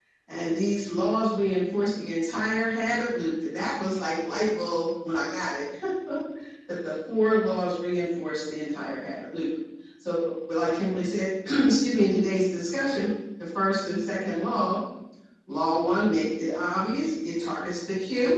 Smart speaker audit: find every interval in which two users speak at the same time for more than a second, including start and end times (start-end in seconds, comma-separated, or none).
none